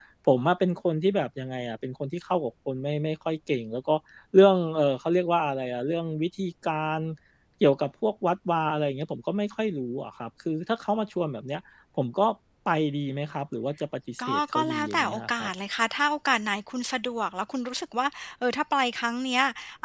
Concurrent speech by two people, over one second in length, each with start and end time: 14.3-15.5

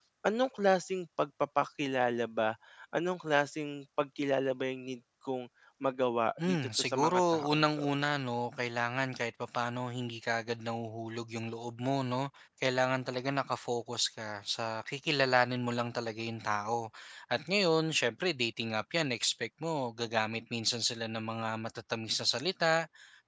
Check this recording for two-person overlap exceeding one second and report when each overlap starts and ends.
6.4-7.8

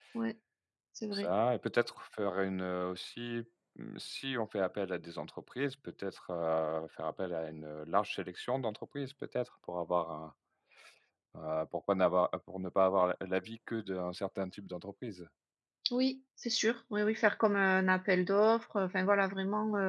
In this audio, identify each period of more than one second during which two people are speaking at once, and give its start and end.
none

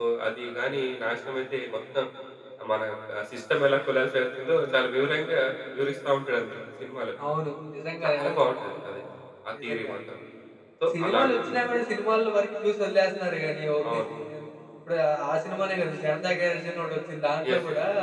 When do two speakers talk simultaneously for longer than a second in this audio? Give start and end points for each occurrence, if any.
none

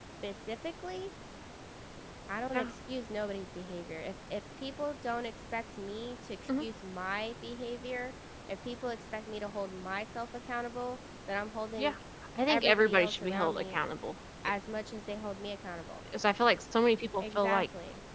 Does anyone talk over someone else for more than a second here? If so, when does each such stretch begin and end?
12.5-13.8

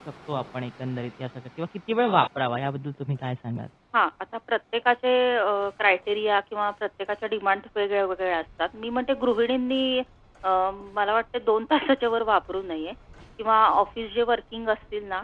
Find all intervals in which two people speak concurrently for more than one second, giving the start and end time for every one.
none

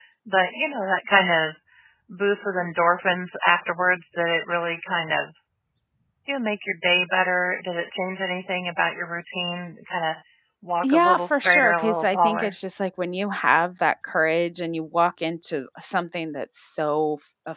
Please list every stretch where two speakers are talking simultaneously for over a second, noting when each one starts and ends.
10.8-12.5

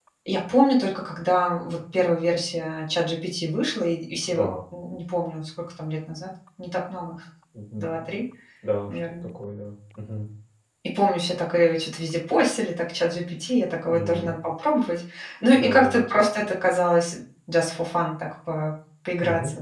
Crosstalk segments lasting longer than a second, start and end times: none

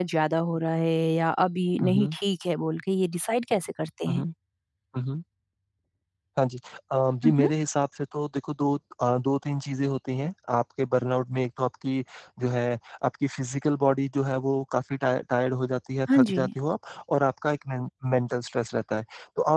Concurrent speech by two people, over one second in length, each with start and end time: none

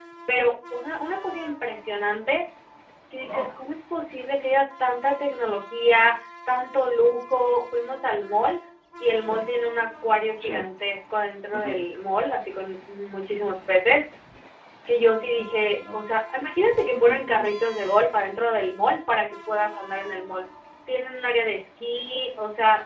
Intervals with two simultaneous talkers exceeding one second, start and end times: none

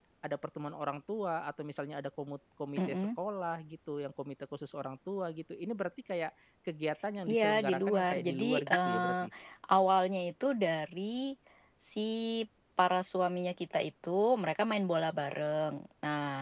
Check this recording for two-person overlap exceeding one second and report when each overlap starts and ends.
7.3-9.1

